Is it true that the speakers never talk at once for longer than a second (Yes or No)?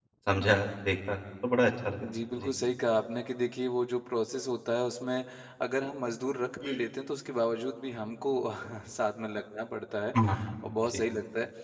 Yes